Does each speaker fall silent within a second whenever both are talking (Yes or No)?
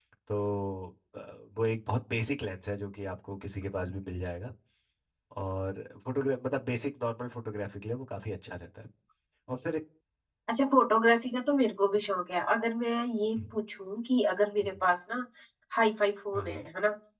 Yes